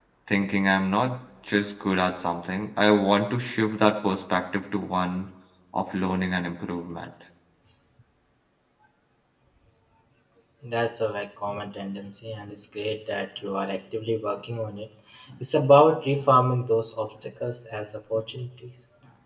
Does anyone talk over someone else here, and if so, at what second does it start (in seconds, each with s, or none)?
none